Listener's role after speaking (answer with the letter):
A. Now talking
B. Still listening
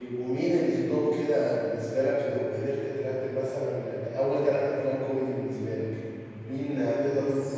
B